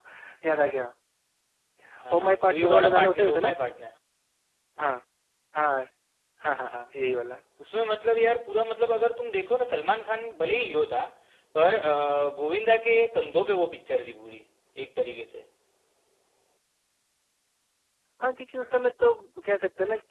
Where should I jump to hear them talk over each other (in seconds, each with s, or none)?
2.1 s